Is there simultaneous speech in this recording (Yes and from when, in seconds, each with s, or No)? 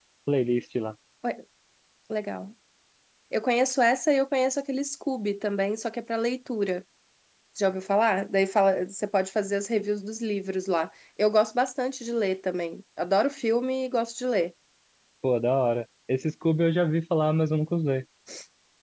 No